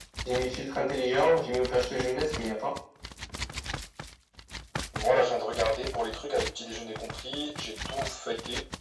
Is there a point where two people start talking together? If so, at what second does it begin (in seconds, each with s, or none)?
none